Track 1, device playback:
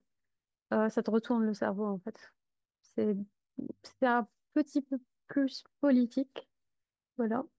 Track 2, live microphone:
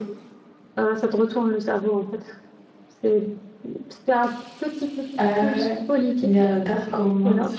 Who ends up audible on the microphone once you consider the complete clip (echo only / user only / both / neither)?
both